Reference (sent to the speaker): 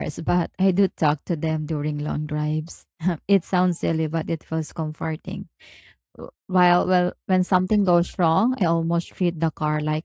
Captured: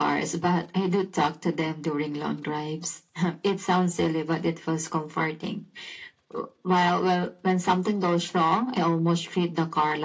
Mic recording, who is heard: echo only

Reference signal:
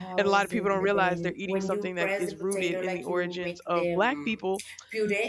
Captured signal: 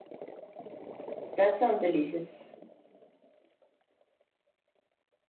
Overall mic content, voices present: user only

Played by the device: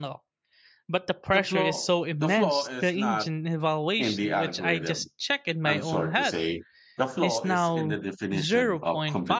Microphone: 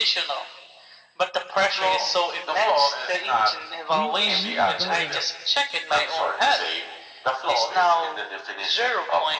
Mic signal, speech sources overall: both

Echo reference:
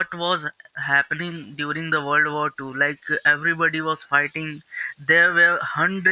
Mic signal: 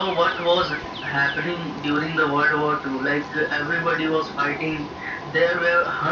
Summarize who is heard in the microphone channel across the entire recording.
echo only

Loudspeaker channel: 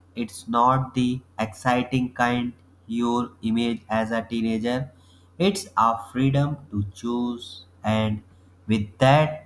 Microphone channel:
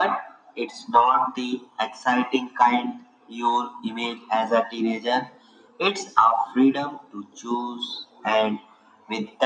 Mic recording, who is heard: echo only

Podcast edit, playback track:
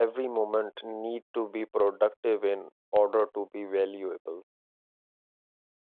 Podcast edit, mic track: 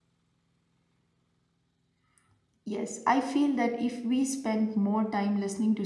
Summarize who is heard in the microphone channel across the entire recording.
user only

